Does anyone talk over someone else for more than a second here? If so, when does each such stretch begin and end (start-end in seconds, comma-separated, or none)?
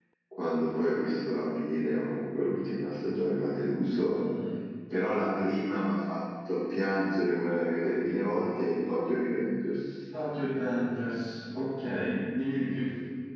none